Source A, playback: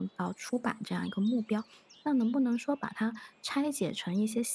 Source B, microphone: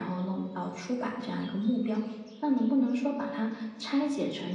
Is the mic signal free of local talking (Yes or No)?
Yes